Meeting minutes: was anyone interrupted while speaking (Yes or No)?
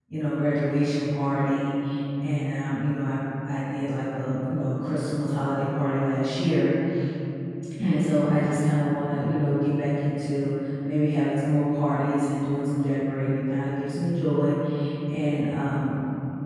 No